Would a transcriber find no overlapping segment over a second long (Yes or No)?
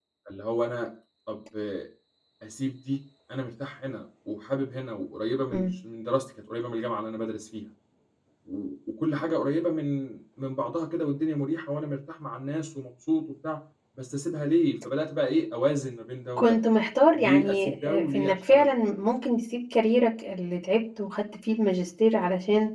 No